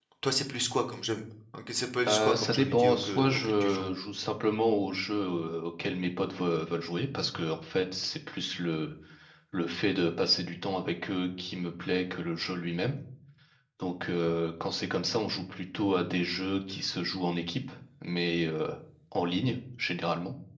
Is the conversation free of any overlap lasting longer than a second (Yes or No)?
No